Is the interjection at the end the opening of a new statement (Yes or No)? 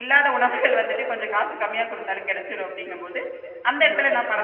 No